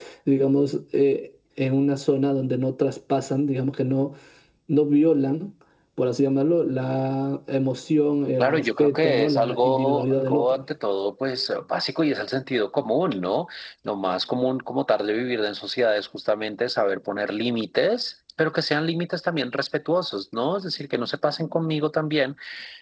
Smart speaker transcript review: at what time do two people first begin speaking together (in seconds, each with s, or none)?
8.4 s